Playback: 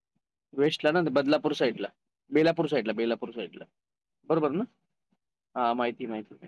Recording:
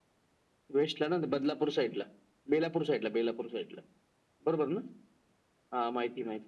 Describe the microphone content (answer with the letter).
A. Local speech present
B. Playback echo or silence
B